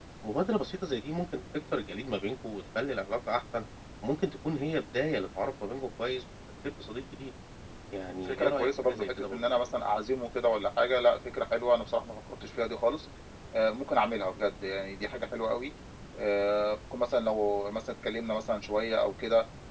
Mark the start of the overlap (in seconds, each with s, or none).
8.2 s